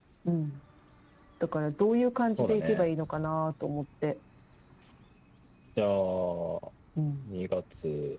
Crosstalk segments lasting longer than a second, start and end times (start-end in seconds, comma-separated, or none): none